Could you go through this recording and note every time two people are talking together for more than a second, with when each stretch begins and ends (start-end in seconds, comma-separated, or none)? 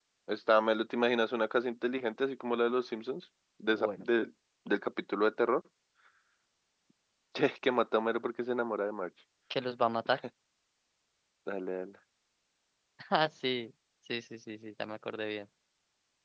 none